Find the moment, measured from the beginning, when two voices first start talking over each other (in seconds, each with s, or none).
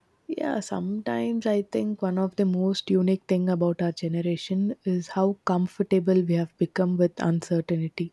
none